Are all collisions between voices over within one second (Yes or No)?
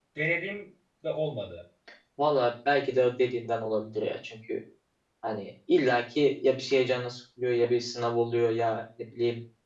Yes